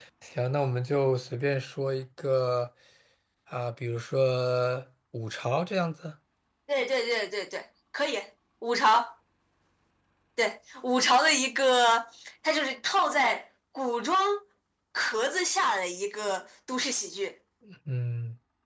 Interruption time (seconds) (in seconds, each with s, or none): none